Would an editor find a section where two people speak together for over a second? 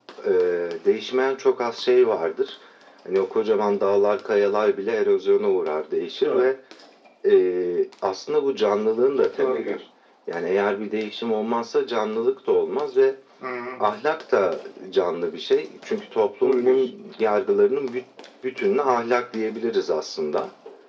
No

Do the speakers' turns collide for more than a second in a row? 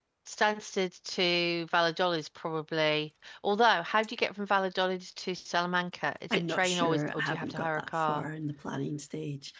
Yes, from 6.3 s

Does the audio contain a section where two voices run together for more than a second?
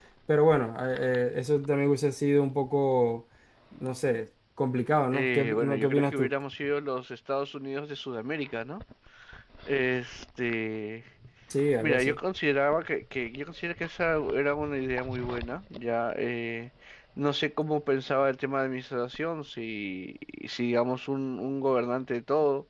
Yes, from 5.1 s

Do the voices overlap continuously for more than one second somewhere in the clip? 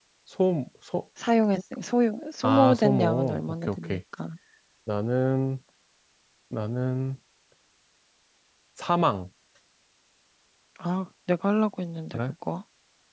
Yes, from 2.4 s

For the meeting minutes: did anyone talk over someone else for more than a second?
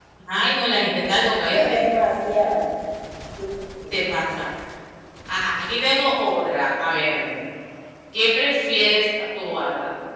No

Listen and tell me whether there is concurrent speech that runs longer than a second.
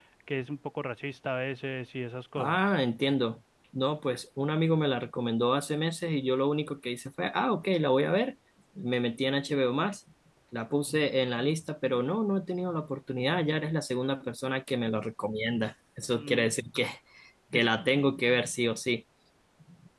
No

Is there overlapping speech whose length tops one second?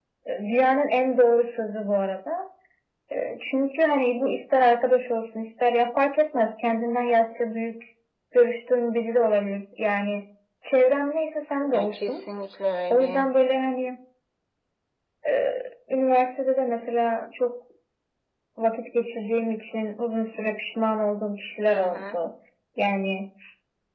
No

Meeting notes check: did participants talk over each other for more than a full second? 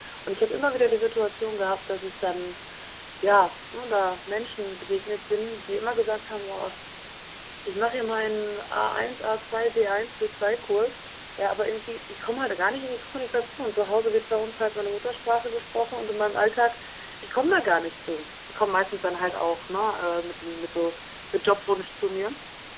No

